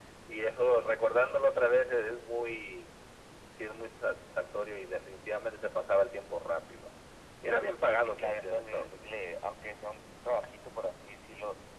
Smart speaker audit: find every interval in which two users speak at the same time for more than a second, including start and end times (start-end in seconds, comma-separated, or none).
7.8-9.1